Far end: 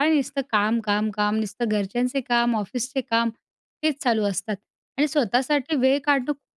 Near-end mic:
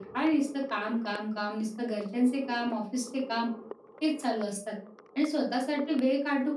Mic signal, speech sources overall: echo only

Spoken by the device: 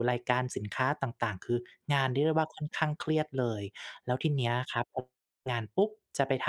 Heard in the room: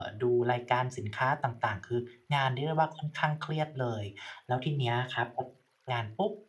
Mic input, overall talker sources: echo only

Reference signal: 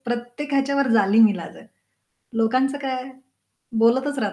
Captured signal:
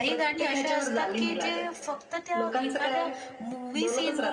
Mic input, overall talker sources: both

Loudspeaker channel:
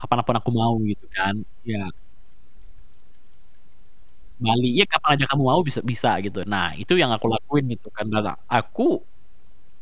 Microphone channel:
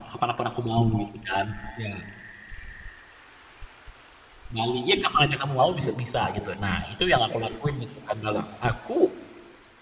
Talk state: echo only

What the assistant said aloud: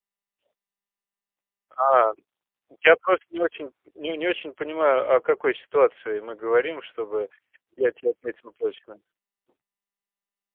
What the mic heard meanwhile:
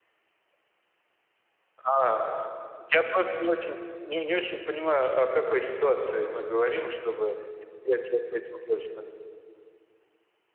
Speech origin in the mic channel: echo only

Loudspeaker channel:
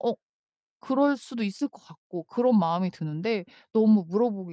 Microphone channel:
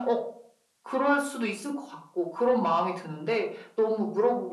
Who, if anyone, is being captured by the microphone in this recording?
echo only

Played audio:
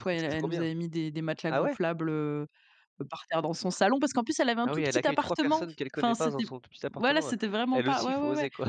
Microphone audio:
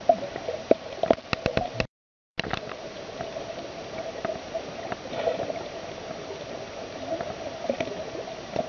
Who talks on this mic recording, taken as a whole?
neither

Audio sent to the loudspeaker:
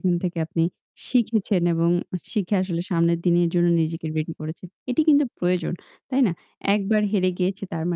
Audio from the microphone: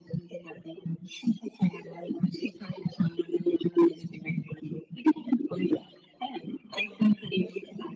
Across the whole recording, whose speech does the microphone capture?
echo only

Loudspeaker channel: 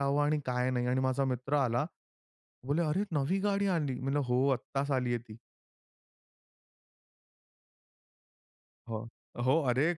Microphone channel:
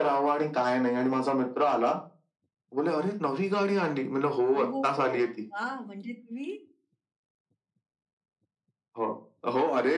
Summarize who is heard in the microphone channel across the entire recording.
both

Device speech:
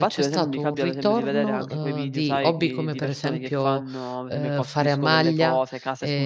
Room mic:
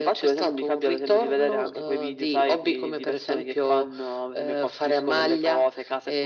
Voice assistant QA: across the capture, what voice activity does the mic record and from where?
echo only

